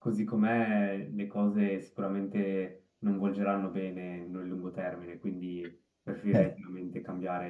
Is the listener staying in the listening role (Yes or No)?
Yes